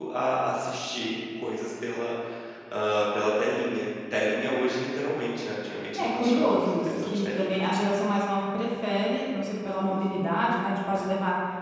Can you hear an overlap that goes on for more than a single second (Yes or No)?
Yes